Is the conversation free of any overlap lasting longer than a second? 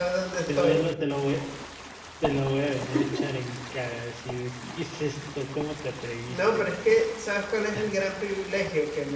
Yes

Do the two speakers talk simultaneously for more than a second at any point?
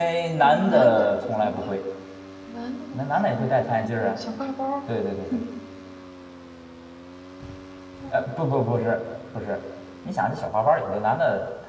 Yes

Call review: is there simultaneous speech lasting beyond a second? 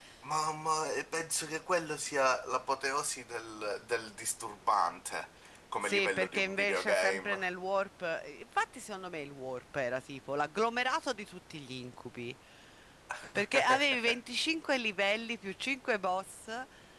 Yes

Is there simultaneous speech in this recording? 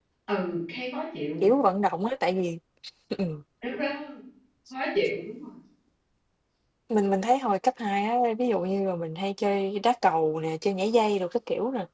No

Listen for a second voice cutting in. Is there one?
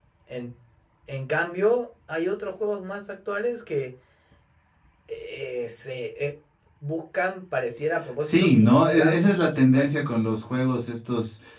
Yes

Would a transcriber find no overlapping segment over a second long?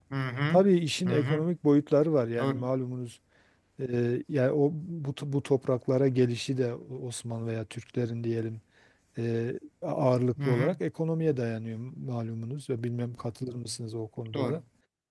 Yes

